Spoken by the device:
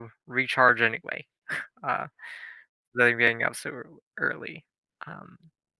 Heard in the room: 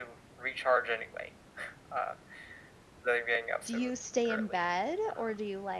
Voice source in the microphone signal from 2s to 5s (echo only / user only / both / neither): both